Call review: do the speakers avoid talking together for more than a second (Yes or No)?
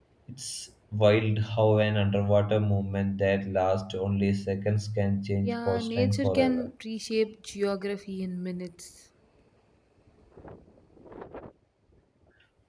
No